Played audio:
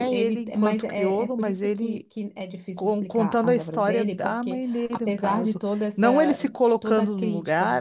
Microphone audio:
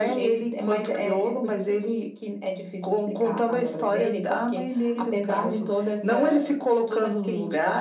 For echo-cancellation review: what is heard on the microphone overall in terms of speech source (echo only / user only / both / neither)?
echo only